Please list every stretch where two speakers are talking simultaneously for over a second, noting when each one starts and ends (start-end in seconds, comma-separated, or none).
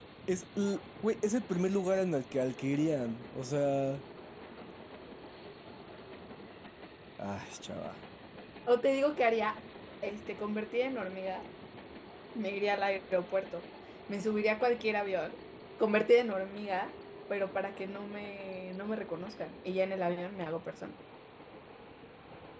none